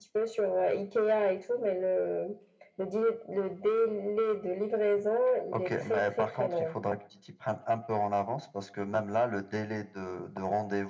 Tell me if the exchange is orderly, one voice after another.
No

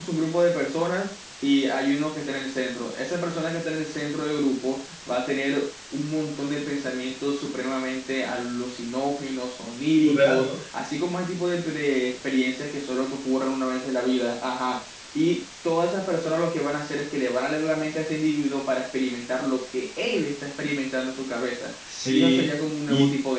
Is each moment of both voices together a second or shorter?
No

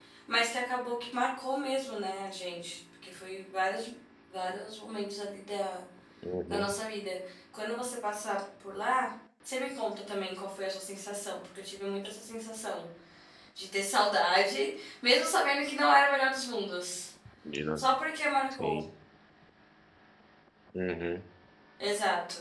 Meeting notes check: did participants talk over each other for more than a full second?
No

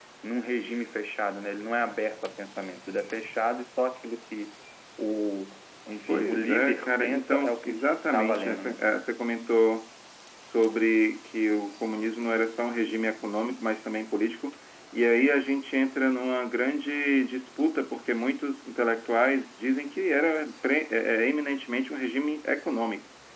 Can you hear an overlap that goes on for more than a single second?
Yes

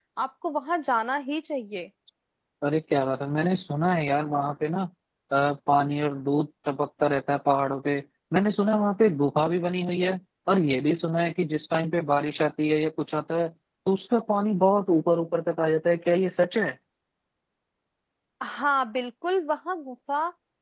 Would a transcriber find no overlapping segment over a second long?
Yes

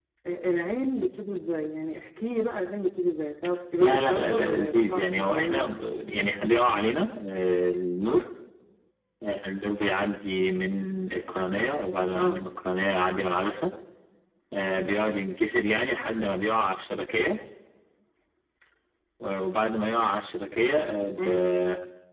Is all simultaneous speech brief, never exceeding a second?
No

